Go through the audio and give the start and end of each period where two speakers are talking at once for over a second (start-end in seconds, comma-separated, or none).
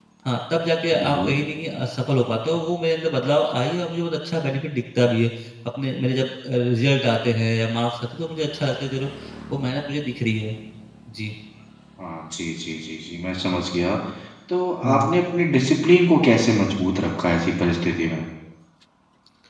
none